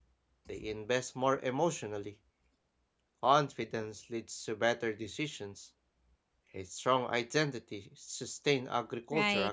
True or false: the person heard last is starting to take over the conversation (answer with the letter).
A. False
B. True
B